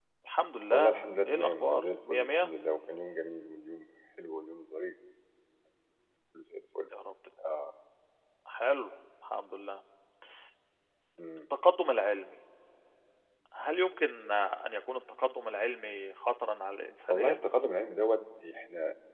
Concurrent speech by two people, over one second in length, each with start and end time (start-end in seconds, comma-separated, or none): 0.7-2.5